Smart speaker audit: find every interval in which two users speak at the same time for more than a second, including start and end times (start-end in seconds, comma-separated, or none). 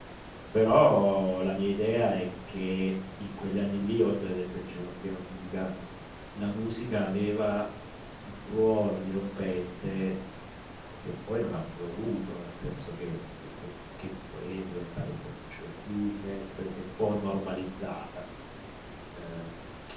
none